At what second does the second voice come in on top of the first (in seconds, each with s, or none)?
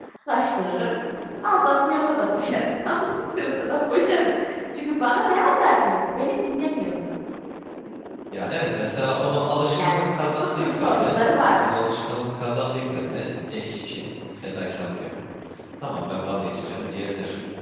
9.8 s